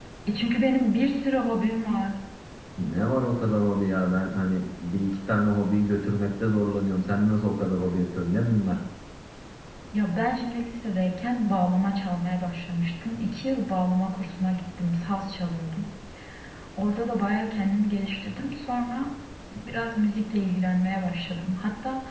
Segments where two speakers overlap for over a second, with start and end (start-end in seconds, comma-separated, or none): none